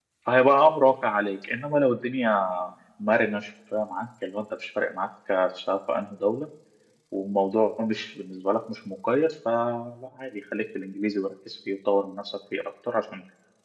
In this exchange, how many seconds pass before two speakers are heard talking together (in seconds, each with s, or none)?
none